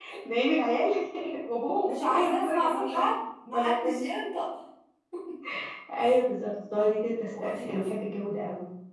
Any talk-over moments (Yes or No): Yes